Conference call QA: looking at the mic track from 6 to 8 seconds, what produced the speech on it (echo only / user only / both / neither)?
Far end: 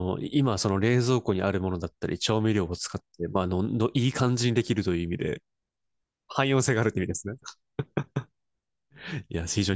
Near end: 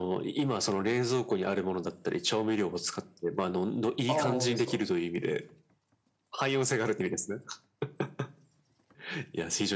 echo only